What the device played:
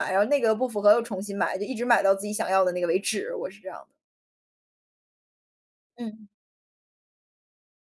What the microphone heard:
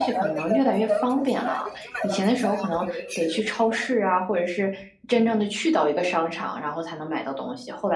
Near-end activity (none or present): present